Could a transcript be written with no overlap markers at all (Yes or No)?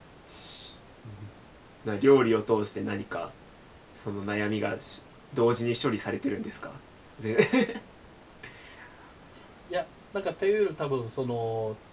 Yes